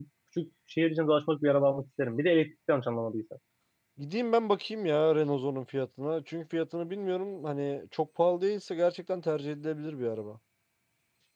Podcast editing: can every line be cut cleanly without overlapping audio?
Yes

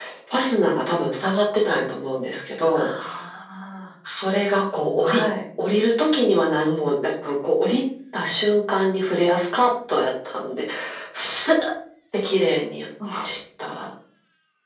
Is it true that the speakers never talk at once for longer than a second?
Yes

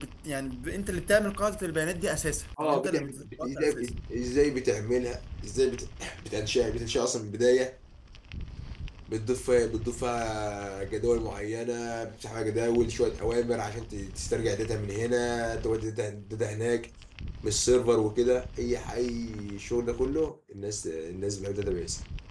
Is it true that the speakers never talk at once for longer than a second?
No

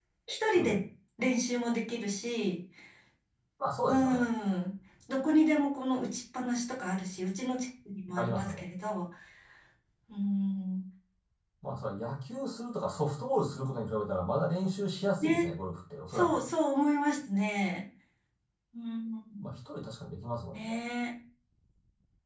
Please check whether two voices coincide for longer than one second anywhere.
No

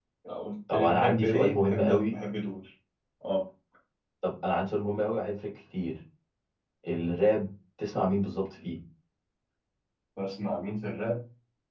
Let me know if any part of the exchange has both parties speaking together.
Yes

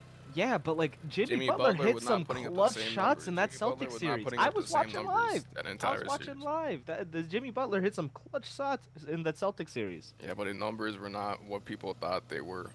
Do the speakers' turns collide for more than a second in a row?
Yes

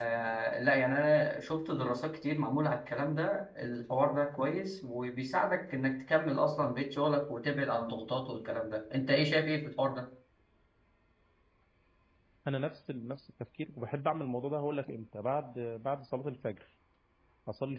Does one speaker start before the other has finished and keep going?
No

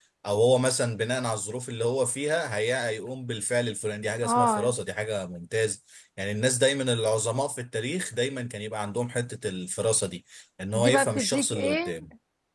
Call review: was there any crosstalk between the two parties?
Yes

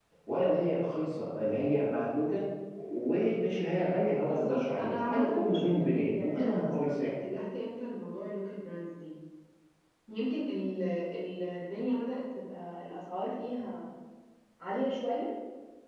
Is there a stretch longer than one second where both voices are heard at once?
Yes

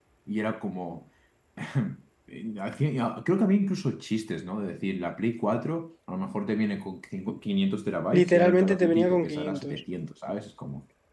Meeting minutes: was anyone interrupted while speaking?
Yes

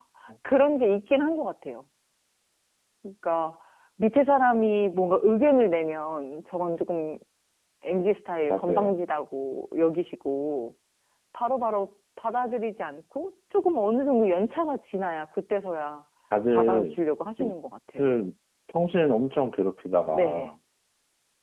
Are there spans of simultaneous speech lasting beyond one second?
No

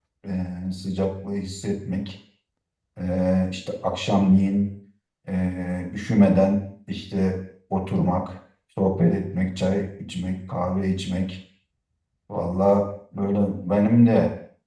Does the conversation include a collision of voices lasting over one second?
No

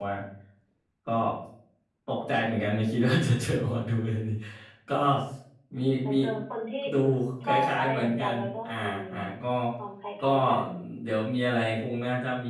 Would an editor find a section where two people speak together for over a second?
Yes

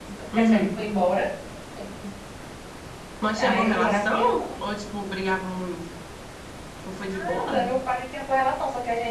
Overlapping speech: Yes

